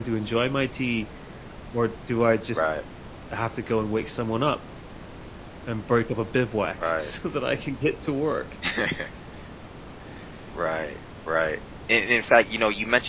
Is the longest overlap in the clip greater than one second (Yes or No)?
No